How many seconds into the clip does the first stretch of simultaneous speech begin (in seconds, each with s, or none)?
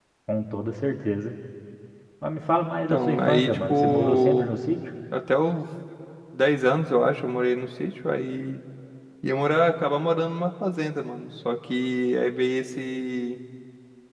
2.9 s